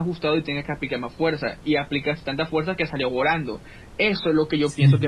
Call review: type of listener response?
listening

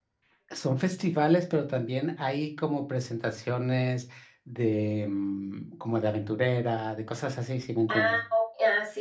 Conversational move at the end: taking over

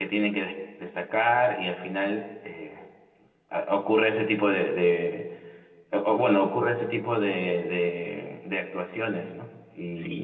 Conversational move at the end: taking over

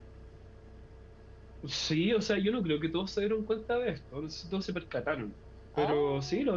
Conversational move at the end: listening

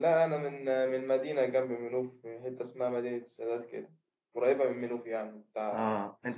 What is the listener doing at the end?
taking over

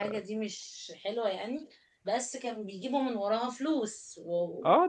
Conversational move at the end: taking over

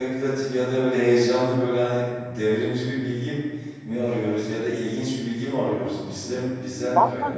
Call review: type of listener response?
taking over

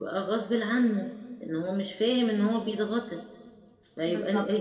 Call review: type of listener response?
listening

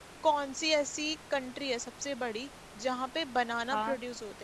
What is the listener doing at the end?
listening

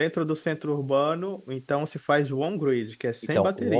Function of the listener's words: taking over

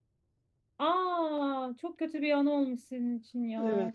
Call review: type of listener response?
taking over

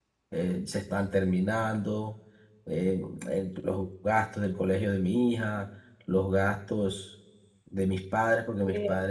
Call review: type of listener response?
listening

